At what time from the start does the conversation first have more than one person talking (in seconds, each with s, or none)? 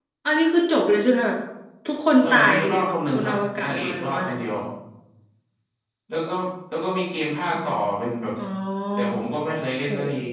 2.2 s